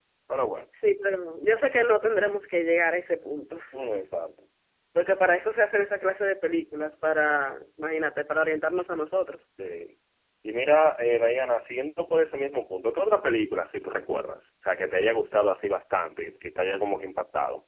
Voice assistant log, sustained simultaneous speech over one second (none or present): none